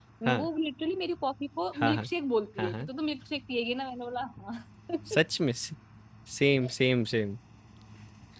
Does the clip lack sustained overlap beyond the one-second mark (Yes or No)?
Yes